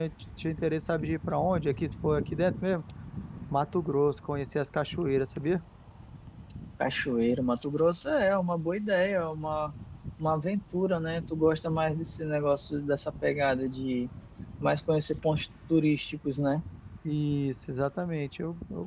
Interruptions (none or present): none